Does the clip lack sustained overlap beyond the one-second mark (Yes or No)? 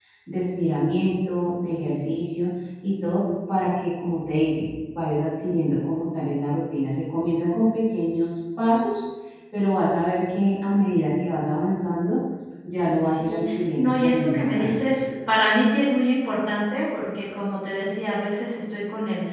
No